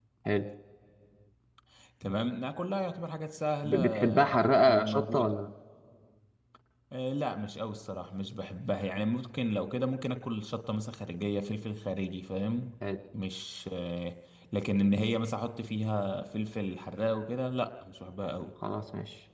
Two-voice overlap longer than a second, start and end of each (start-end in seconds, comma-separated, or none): 3.6-5.4